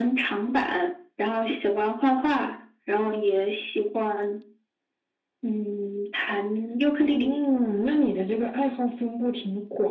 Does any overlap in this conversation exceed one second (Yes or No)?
No